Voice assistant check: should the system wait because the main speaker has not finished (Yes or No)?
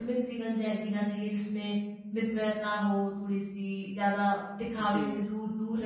Yes